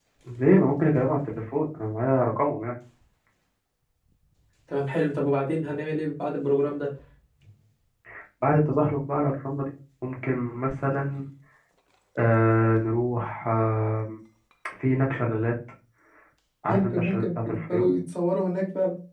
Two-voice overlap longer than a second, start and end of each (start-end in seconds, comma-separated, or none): 16.7-17.9